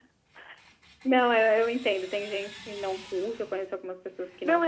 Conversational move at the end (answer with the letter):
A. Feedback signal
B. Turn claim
B